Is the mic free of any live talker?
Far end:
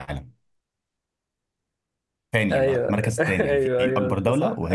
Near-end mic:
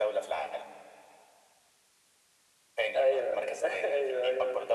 Yes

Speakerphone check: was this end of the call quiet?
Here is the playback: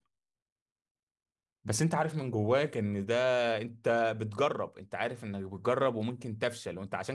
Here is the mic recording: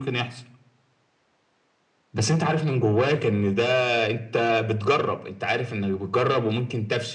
Yes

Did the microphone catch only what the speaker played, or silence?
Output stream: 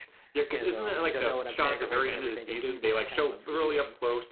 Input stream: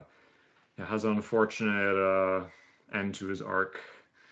No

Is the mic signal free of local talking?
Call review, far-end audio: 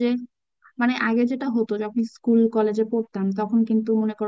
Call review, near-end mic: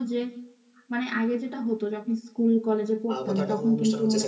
No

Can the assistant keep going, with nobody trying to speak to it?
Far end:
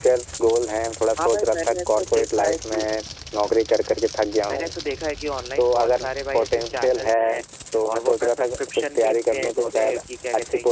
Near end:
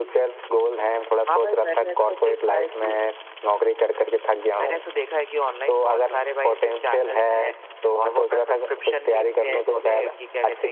Yes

